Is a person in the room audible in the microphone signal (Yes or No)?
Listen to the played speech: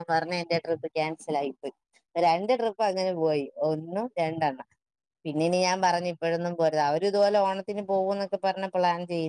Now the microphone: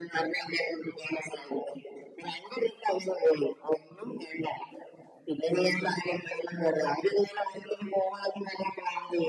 No